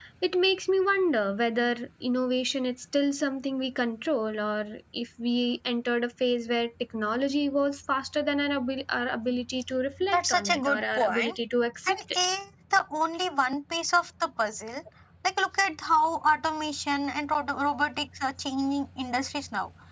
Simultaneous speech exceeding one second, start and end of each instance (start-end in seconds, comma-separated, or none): 10.1-11.3